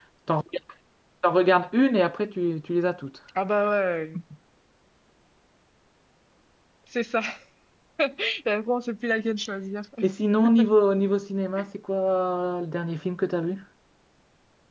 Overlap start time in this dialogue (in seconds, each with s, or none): none